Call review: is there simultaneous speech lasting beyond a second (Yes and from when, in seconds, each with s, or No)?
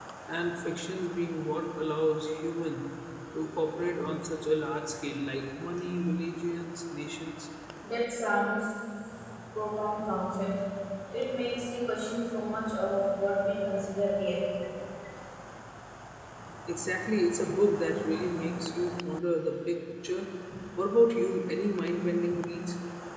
No